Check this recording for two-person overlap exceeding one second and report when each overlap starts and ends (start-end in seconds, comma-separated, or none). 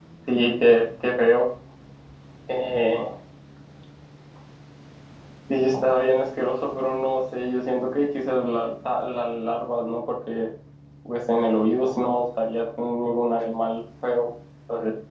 none